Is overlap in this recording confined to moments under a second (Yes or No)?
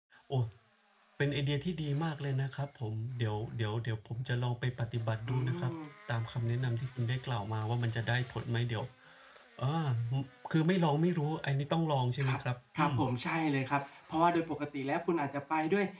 Yes